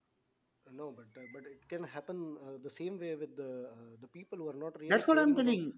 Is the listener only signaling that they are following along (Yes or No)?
No